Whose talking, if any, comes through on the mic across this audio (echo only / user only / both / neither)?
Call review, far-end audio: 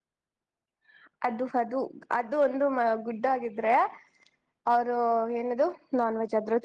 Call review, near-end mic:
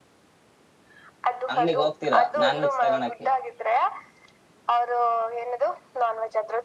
both